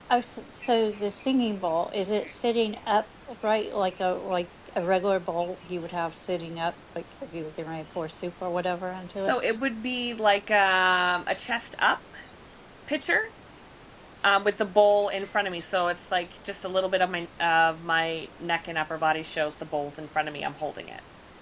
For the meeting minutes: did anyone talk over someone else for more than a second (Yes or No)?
No